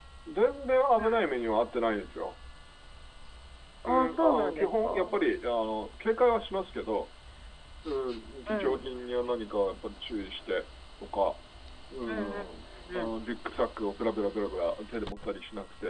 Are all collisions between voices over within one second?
No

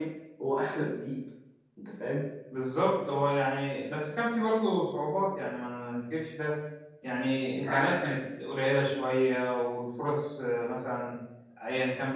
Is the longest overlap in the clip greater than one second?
No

